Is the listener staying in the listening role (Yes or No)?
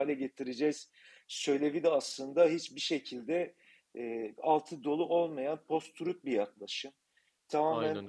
Yes